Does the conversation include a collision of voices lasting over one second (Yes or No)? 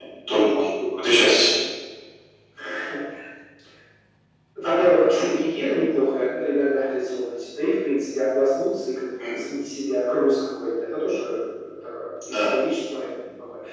No